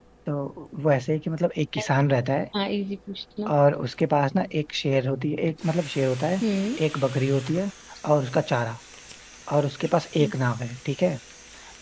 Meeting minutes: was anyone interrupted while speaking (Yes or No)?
No